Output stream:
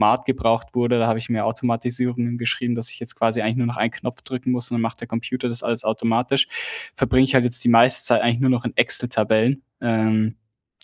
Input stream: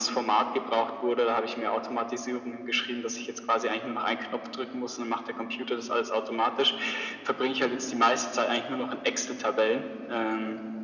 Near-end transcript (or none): none